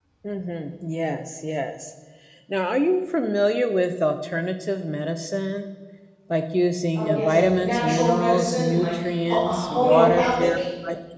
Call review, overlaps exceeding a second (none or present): present